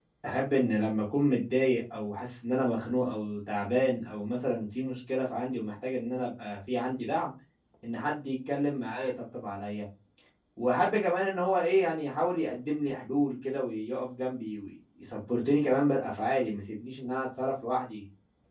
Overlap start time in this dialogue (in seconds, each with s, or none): none